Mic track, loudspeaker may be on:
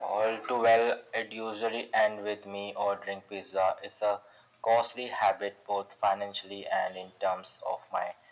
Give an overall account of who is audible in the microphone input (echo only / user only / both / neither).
echo only